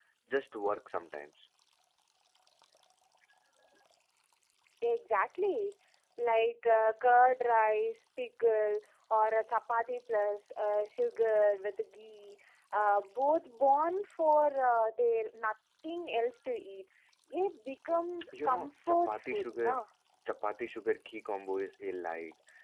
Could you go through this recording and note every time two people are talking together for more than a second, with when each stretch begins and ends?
18.4-19.8

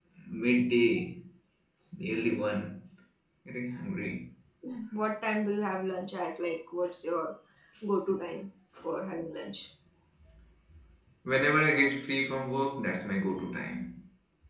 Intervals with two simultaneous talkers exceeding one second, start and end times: none

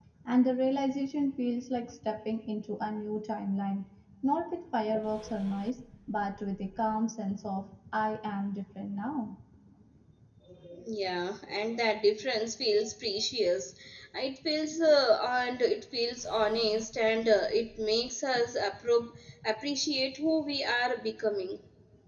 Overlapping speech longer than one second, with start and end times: none

